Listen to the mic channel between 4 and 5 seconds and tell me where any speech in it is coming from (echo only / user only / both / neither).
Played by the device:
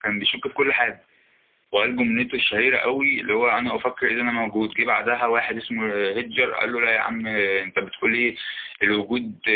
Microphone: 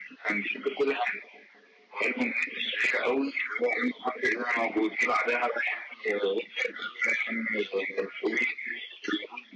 echo only